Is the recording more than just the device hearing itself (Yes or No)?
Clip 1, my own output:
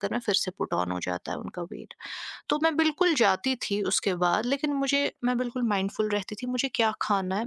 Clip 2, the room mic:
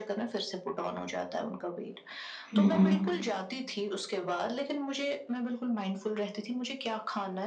Yes